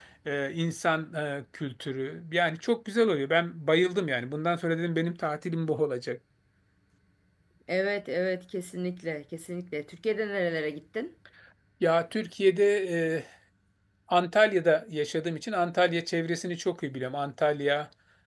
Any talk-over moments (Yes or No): No